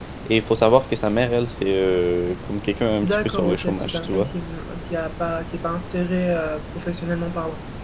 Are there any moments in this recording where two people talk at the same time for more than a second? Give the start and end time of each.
3.0-4.3

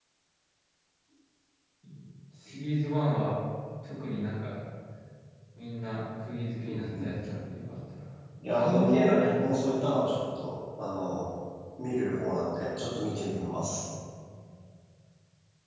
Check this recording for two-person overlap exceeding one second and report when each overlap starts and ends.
8.5-9.8

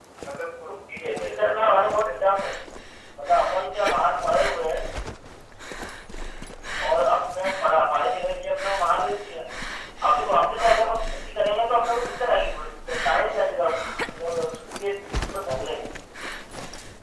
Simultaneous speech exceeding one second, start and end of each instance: 0.7-2.1

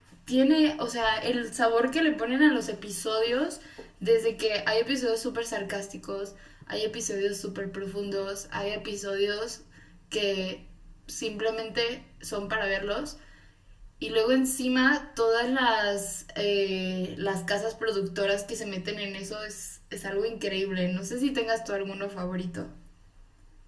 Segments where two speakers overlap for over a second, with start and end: none

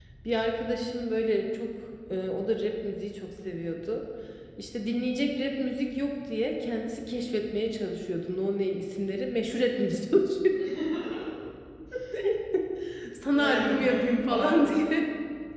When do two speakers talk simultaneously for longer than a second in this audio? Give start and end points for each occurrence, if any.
13.3-14.8

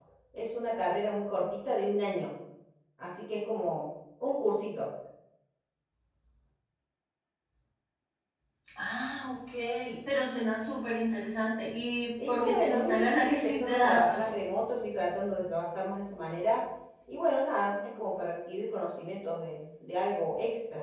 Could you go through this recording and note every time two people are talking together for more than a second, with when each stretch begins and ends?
12.3-14.4

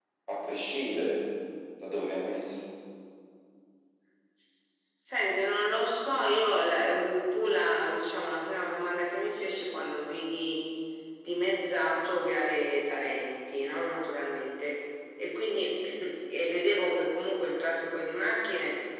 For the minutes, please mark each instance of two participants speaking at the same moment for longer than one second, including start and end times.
none

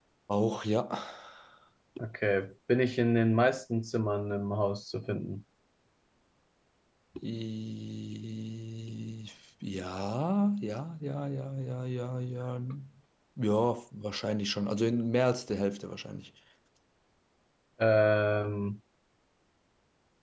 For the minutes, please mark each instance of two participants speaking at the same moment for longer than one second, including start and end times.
none

